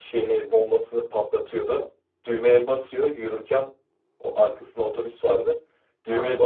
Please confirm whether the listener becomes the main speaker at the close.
No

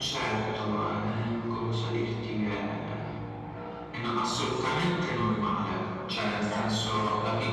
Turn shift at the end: No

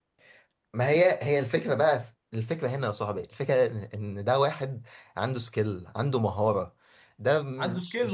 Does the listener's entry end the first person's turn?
Yes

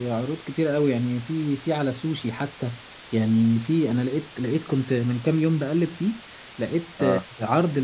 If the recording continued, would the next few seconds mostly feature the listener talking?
No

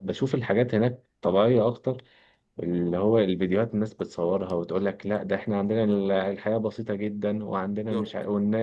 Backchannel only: Yes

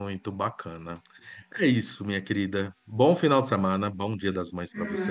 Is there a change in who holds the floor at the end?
Yes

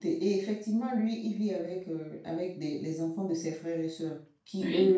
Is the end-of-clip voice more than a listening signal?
No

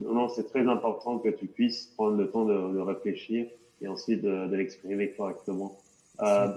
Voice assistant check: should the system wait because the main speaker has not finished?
Yes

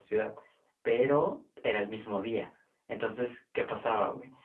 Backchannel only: Yes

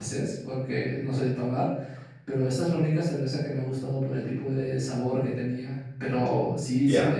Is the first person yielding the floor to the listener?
No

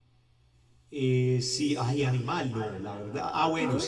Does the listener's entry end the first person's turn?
No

